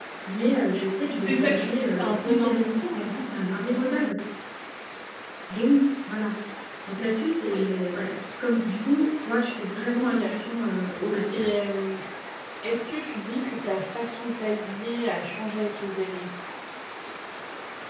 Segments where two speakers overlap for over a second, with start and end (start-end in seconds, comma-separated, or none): 1.2-3.1